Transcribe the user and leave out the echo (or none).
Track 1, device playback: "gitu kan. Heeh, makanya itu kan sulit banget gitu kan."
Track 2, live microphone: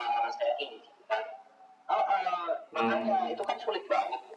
hmm,